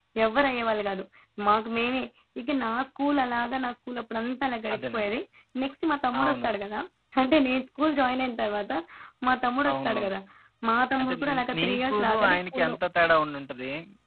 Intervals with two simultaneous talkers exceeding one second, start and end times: 11.0-12.8

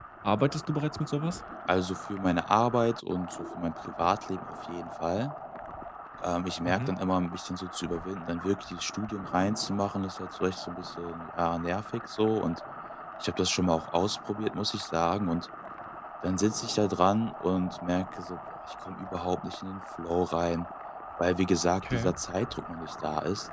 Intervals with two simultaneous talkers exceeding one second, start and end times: none

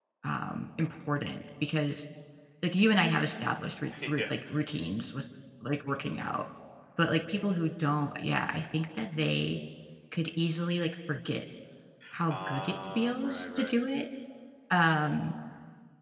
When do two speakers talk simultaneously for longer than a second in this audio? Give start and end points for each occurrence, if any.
12.3-13.8

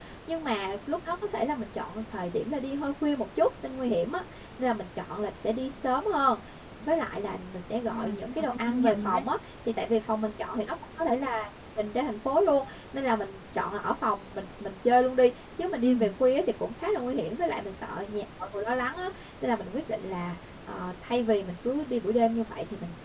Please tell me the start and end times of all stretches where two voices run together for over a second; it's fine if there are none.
7.9-9.2

